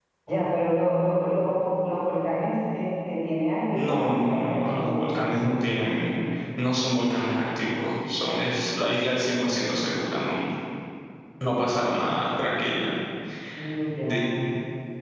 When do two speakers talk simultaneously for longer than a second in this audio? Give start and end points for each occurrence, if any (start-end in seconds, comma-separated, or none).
3.7-5.5